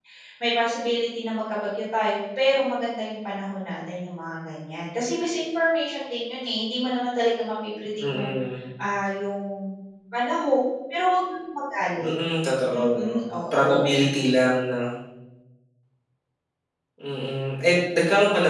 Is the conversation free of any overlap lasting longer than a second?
Yes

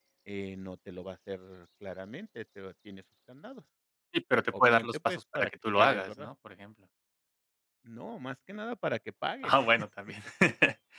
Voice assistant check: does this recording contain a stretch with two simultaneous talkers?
Yes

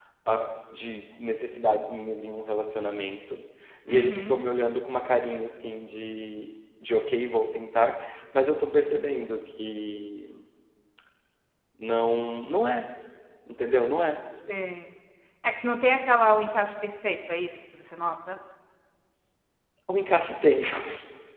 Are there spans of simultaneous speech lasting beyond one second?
No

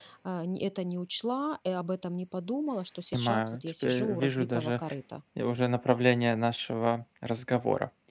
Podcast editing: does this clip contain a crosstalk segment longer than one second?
Yes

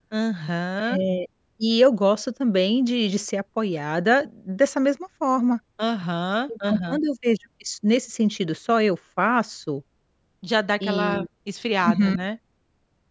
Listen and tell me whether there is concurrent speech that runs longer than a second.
No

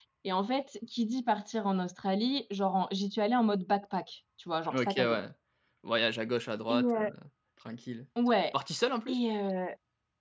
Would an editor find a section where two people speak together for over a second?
No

